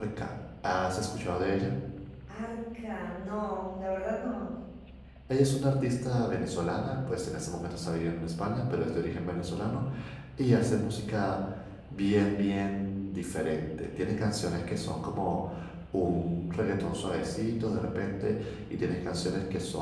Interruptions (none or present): none